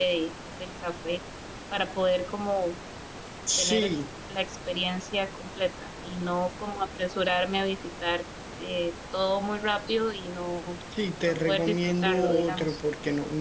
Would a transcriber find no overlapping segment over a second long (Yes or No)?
No